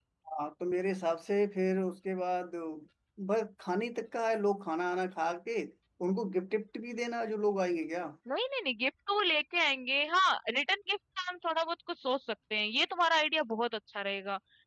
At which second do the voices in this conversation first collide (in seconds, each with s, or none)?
none